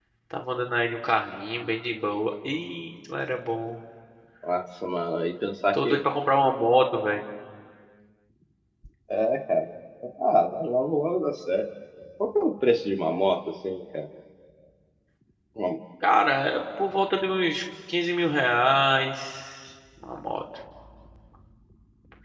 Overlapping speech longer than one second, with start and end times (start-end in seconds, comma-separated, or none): none